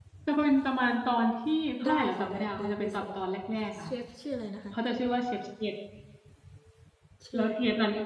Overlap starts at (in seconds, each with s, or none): 1.8 s